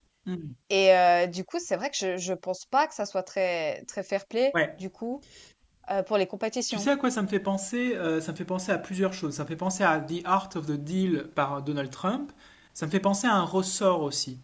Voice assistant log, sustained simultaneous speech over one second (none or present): none